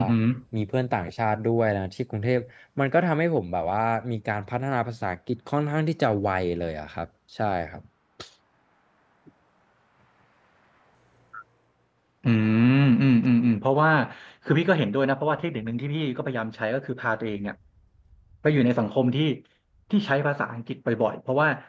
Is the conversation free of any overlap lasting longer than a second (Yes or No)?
Yes